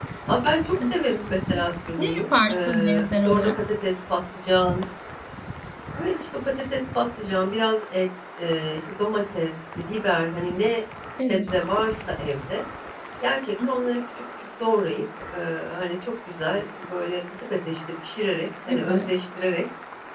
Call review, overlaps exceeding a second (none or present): present